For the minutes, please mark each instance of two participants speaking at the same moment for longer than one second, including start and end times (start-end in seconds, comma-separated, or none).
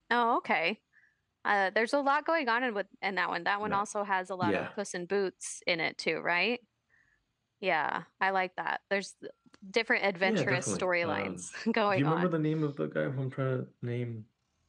10.2-11.4